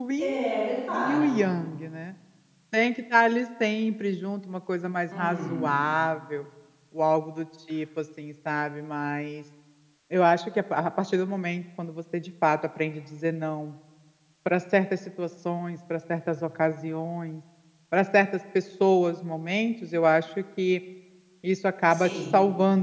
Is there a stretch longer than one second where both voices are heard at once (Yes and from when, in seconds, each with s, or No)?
No